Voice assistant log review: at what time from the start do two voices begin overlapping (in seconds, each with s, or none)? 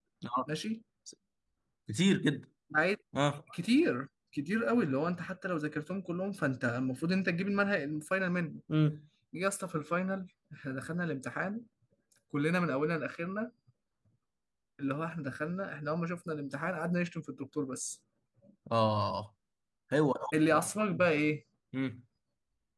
none